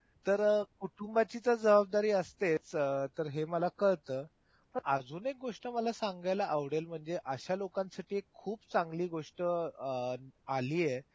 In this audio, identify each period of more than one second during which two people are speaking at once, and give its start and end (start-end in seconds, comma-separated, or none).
none